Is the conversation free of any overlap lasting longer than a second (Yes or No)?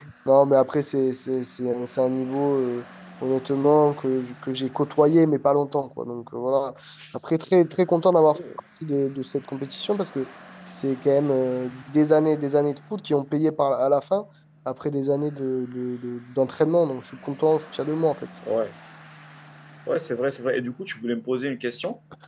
Yes